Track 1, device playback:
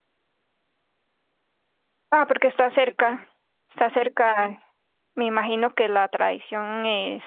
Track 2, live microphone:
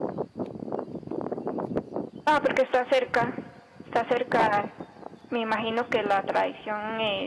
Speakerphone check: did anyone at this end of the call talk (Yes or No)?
No